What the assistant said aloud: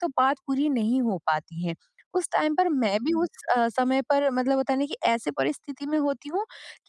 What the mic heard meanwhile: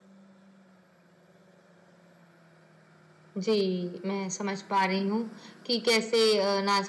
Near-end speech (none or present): present